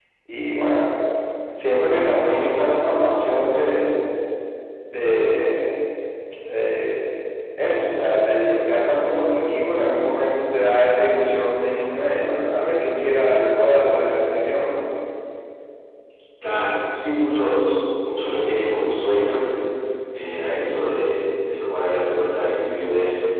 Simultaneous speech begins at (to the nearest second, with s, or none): none